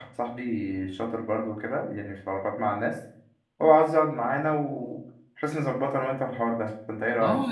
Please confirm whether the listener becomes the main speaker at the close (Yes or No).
Yes